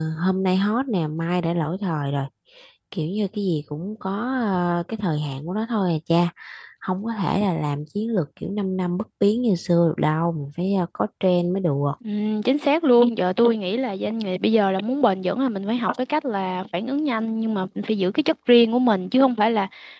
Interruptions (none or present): none